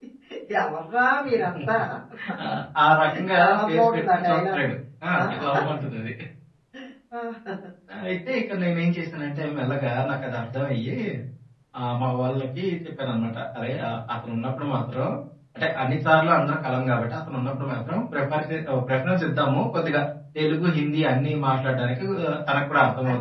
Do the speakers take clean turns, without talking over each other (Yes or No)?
No